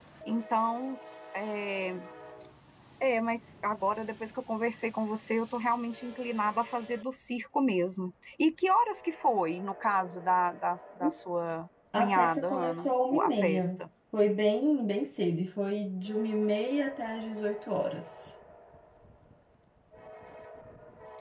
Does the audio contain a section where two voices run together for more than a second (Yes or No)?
Yes